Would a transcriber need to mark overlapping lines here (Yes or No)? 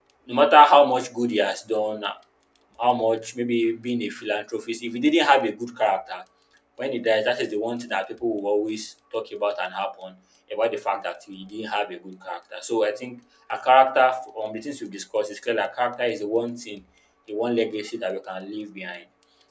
No